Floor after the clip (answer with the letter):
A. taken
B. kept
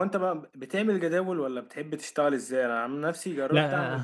B